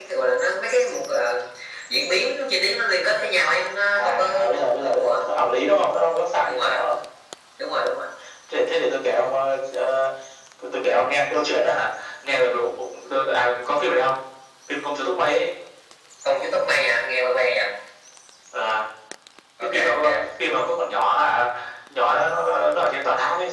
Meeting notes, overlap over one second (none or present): present